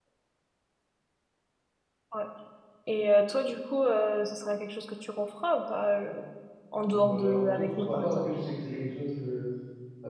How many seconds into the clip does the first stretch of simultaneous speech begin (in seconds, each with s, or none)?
6.9 s